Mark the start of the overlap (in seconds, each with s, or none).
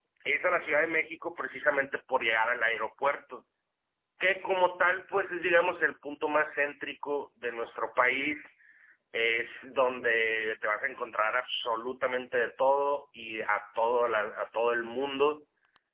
none